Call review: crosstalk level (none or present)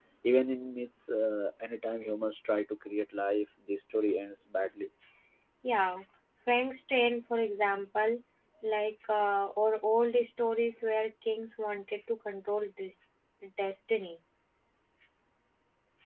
none